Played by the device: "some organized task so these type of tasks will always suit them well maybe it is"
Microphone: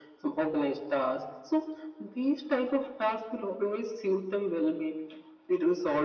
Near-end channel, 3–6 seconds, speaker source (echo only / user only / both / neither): echo only